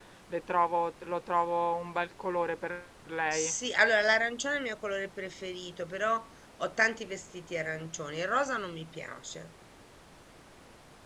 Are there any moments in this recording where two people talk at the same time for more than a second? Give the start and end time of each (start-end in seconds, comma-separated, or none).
none